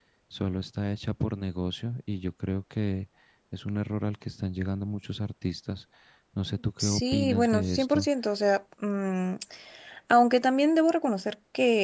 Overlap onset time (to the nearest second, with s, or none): 7 s